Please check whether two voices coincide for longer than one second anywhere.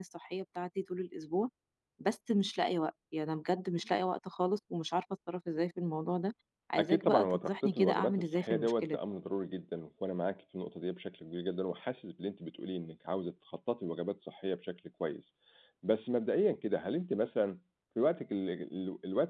Yes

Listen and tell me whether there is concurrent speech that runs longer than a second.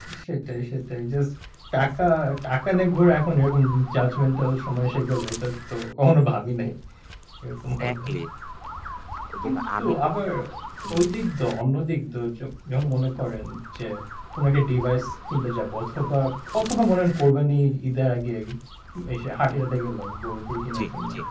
No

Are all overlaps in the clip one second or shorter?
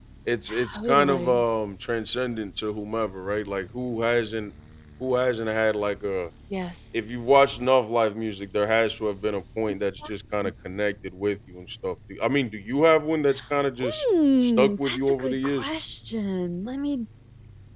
No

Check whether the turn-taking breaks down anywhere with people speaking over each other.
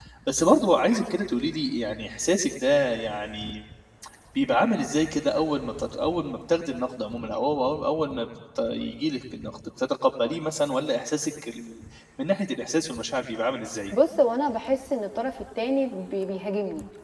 No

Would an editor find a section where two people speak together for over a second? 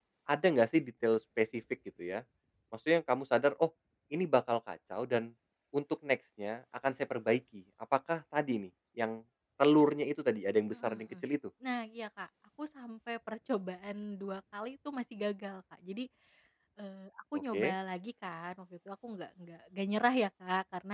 No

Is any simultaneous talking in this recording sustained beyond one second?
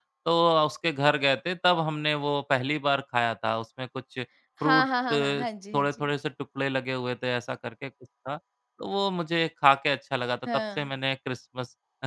No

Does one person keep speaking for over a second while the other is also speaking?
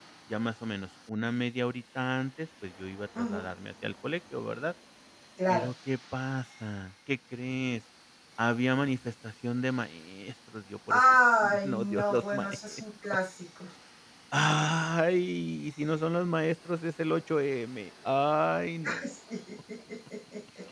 Yes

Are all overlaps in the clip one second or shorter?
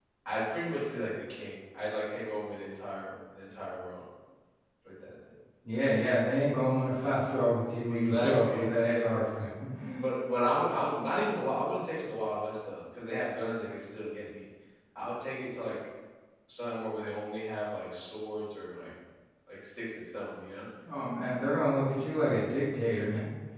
No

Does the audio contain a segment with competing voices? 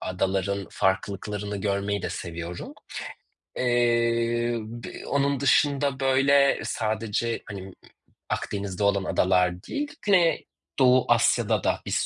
No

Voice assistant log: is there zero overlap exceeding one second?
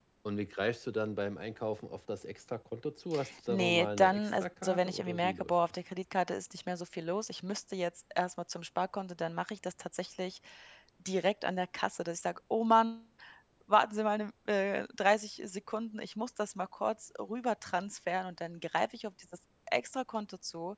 No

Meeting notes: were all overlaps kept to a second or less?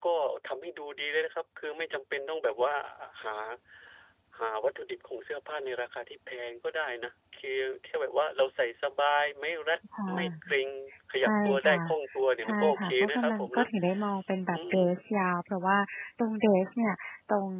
No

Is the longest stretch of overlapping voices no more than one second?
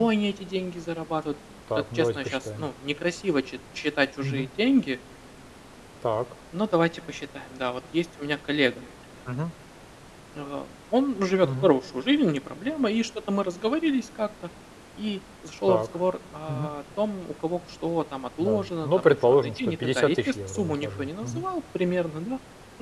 No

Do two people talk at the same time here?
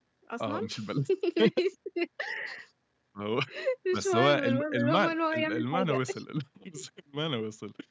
Yes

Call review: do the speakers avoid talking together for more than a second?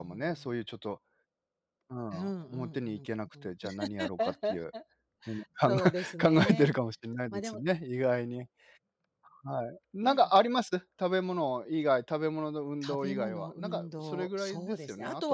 No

